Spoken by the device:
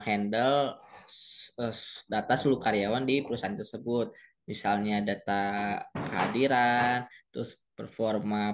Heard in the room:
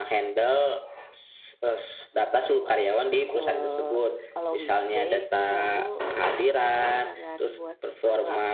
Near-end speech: present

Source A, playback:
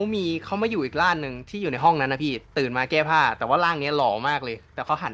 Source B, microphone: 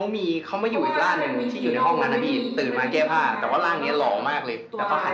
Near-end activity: present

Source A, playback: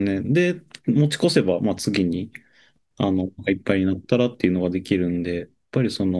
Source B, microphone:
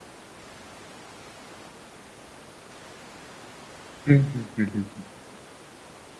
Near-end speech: present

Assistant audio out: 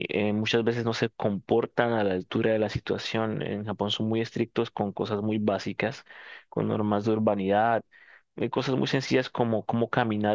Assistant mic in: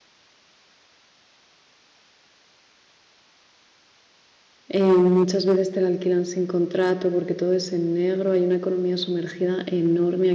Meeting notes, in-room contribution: present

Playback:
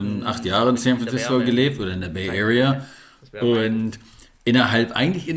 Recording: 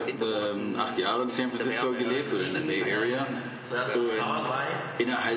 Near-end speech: present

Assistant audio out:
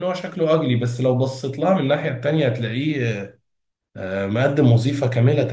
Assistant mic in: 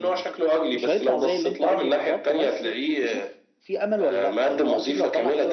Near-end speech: present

